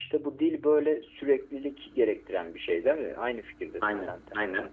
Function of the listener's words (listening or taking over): taking over